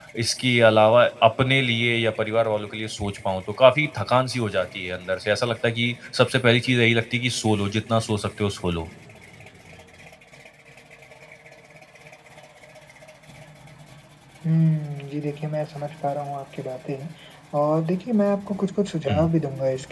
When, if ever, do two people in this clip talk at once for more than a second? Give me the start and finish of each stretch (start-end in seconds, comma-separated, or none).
none